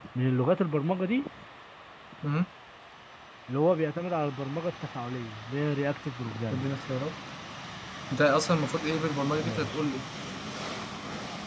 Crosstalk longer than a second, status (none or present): none